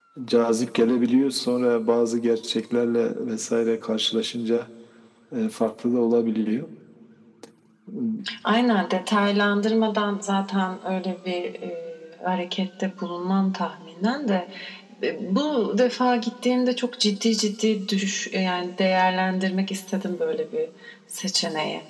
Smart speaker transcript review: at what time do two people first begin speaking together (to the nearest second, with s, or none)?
none